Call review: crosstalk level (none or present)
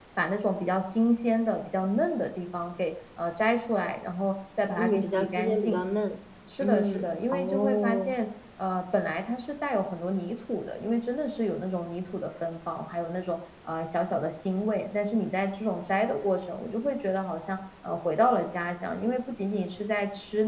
present